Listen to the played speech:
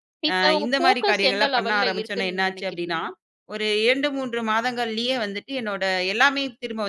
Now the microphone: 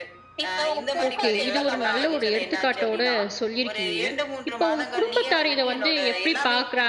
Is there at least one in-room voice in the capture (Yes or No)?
Yes